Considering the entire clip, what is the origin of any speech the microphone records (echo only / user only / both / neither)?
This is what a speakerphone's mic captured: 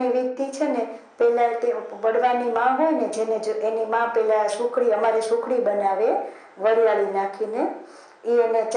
echo only